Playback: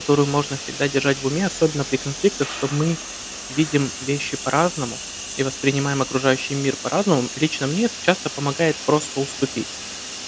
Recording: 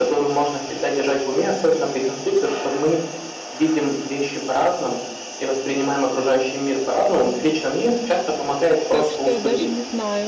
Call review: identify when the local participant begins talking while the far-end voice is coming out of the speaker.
8.9 s

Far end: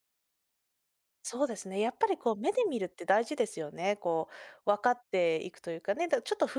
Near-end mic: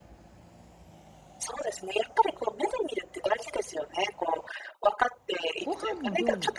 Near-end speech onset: 5.6 s

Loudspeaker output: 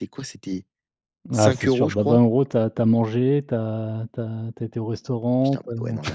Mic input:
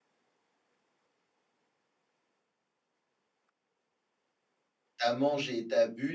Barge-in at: 5.0 s

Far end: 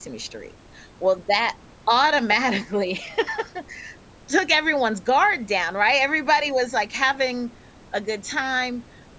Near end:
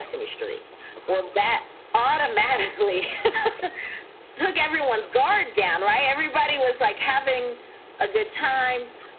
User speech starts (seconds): none

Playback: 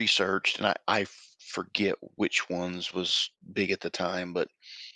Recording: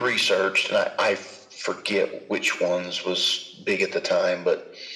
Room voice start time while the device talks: none

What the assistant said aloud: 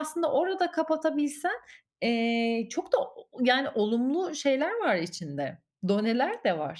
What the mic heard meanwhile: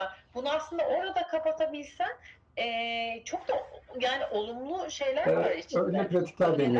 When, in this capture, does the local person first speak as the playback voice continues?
5.2 s

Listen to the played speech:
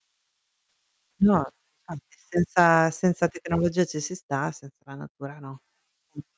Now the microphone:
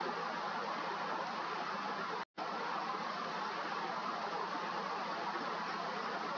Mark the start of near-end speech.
none

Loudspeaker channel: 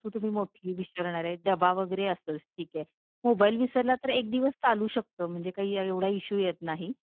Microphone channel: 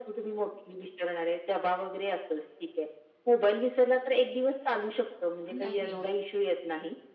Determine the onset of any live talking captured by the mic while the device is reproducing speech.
5.5 s

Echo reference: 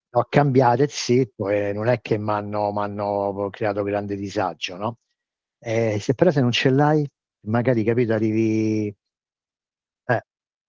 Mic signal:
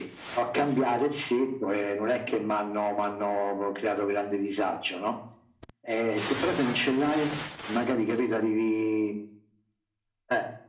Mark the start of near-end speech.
none

